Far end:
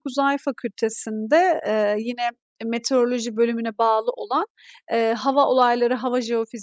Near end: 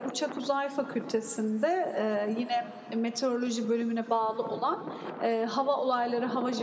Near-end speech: none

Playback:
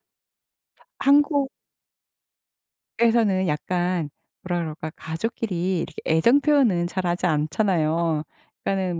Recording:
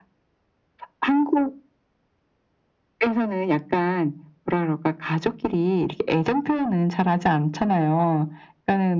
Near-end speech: none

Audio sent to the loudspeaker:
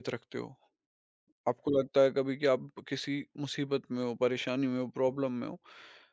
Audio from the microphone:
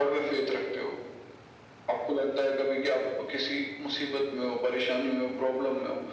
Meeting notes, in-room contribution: none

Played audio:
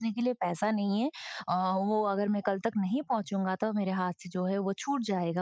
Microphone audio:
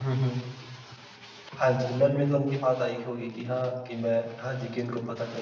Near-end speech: present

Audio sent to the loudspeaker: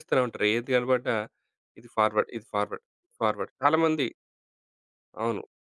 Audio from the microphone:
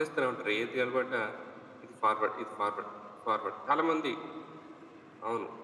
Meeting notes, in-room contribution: none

